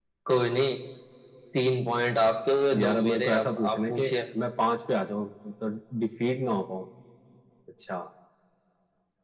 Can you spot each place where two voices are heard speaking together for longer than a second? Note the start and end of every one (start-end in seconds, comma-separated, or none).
2.8-4.1